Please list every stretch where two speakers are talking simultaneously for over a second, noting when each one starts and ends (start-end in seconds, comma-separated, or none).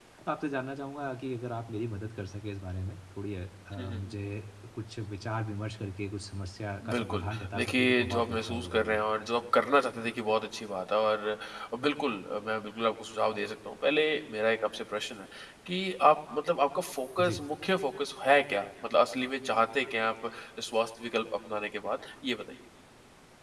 6.9-9.1